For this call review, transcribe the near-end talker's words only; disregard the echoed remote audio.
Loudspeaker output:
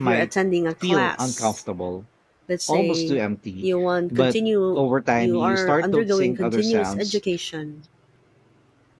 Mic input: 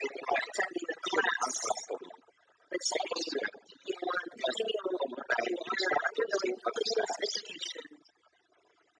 none

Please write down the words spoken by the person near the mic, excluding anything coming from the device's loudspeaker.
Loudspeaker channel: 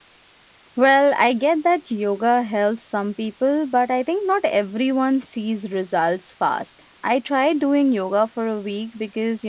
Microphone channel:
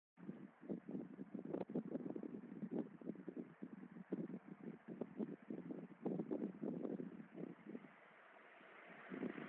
none

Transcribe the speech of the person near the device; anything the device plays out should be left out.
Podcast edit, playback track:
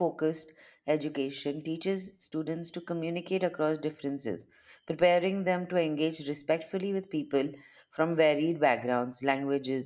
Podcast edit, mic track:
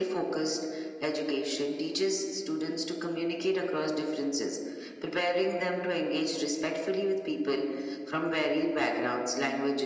none

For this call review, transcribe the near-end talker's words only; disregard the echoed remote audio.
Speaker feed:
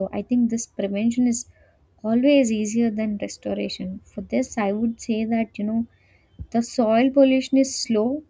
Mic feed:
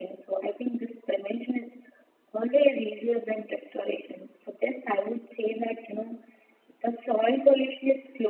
none

